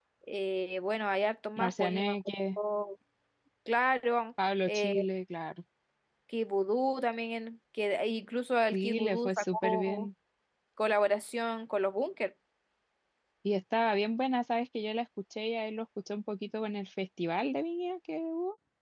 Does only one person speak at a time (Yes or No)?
No